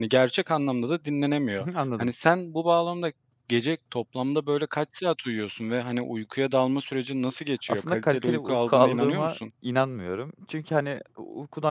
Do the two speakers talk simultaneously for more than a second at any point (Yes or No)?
Yes